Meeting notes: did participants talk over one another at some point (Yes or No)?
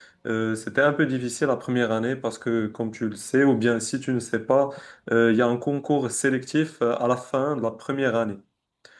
No